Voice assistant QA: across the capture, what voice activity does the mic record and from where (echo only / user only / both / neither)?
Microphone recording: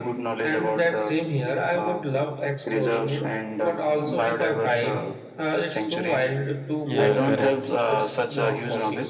both